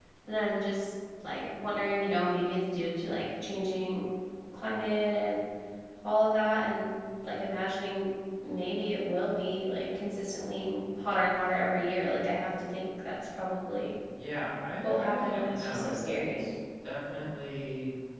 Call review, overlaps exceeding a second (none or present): present